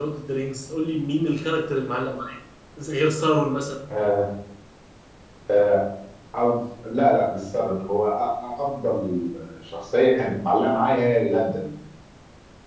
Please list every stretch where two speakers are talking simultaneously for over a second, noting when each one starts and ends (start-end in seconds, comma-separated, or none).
none